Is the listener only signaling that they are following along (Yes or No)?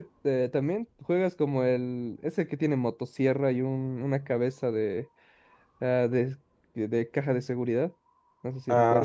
No